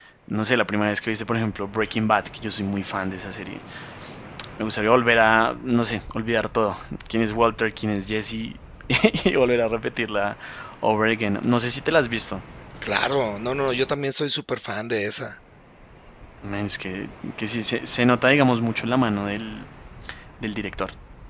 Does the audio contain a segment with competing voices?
No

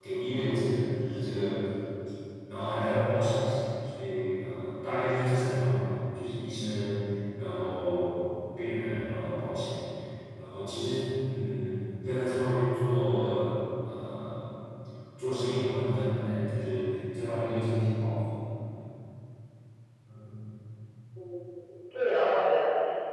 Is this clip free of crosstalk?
Yes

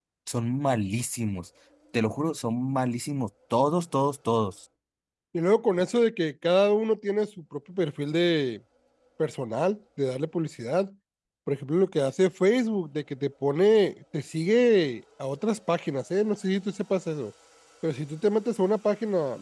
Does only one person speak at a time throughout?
Yes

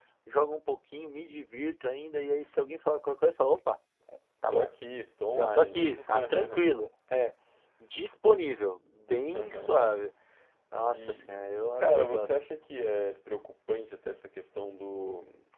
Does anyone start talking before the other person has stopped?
Yes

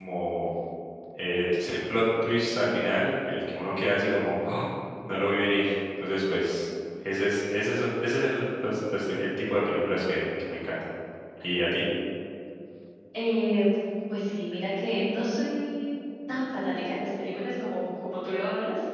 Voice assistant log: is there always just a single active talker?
Yes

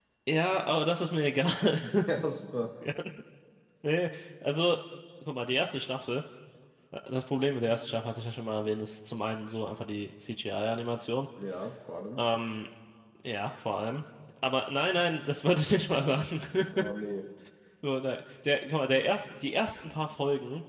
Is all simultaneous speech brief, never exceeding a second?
Yes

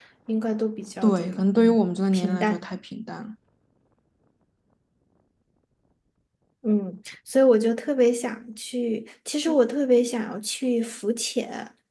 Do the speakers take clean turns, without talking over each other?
No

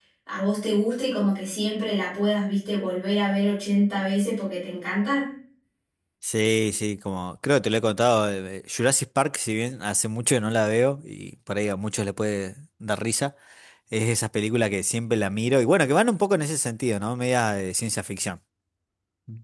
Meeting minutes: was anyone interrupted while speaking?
No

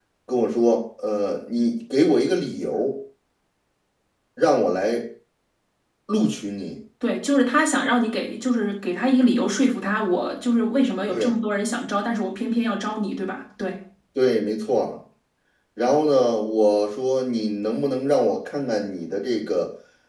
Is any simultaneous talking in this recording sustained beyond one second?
No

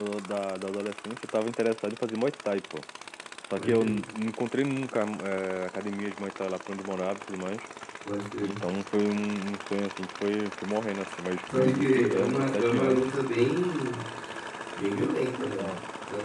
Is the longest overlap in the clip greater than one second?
Yes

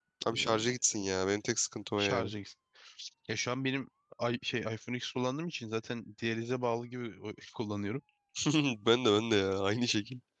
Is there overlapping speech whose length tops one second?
No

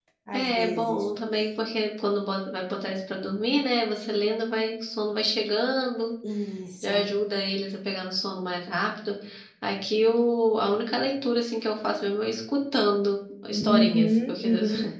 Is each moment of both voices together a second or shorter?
No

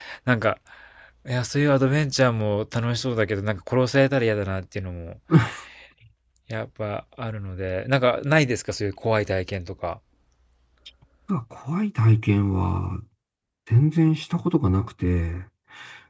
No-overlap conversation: Yes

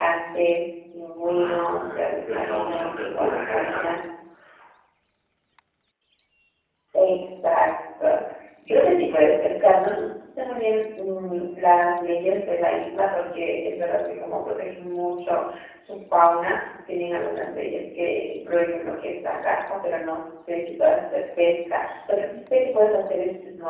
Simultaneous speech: Yes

